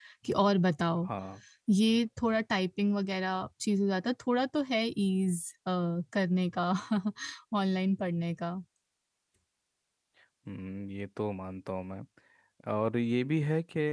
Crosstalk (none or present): none